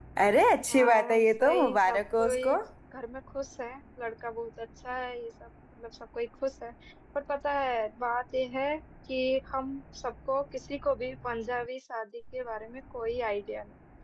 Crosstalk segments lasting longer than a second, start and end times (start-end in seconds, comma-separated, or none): 0.7-2.5